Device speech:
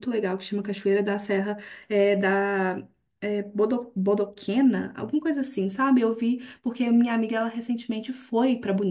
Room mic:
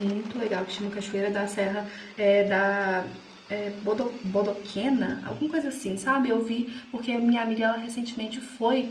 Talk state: echo only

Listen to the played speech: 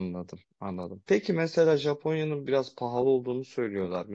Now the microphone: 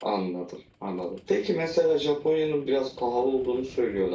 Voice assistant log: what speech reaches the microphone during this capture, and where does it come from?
echo only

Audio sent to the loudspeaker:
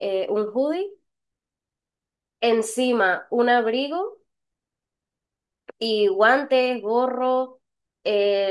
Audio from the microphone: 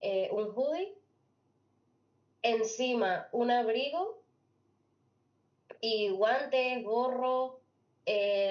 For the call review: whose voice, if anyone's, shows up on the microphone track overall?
echo only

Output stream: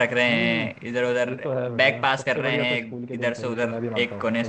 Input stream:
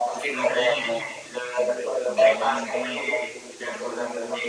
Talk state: both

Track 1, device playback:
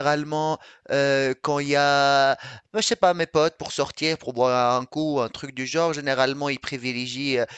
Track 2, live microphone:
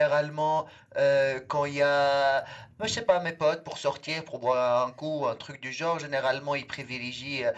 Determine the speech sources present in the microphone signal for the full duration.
echo only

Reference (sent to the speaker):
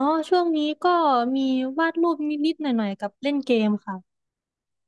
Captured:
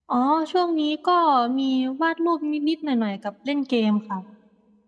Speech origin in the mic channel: echo only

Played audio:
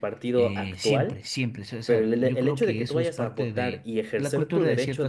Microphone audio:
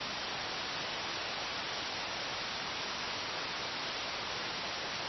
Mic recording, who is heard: neither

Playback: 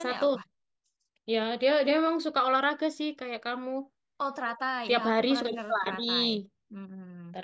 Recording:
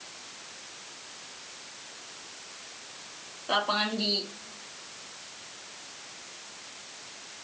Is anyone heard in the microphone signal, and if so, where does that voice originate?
user only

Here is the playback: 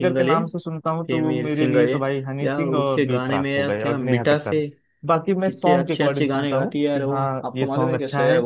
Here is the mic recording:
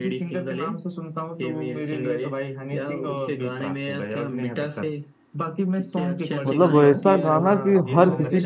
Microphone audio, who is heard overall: both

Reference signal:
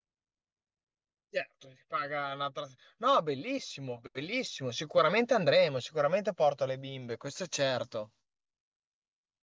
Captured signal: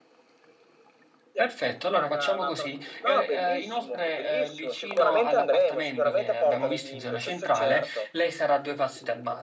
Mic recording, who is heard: both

